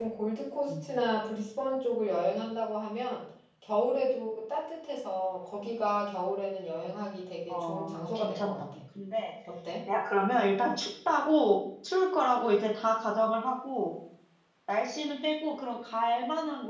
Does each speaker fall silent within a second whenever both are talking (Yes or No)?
No